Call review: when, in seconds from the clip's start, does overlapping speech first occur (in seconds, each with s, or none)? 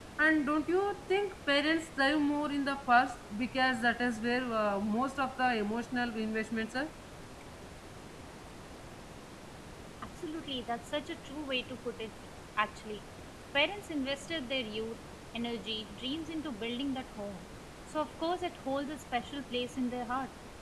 none